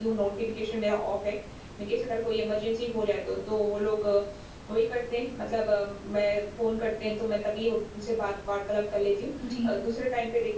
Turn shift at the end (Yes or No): No